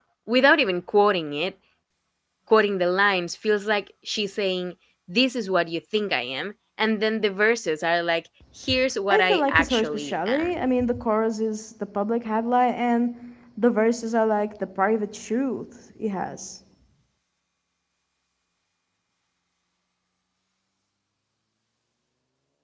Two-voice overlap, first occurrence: 9.1 s

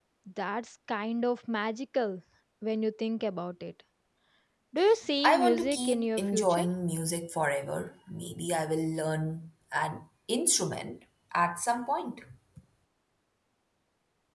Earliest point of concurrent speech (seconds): 5.2 s

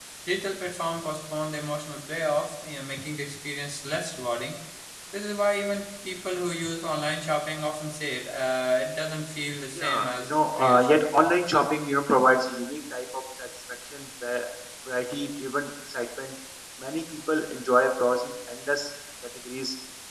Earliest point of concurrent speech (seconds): 9.8 s

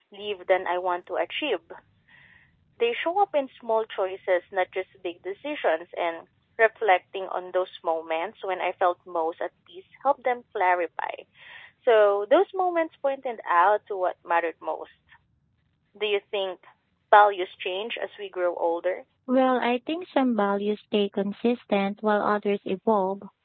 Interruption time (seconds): none

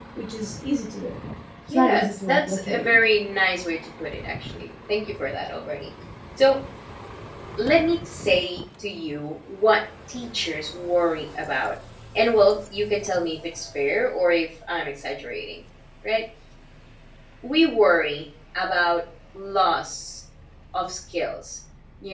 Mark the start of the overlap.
1.7 s

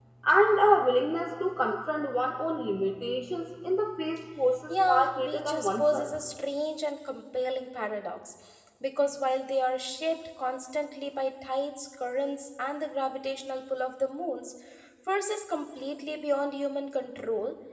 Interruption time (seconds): 4.7 s

